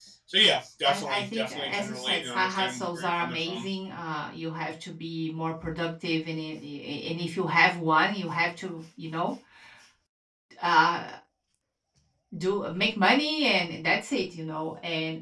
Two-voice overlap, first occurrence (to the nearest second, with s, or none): 1 s